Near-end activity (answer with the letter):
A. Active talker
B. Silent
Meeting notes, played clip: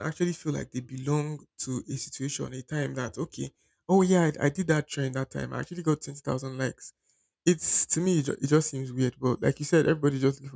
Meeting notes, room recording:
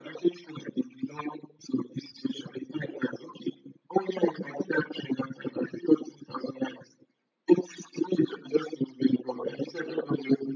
B